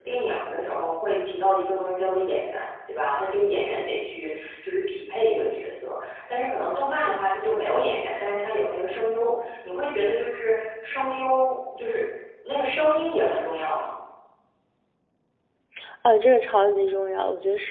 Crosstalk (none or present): none